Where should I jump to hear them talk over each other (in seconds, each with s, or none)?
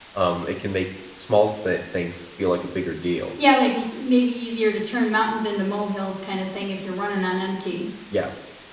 none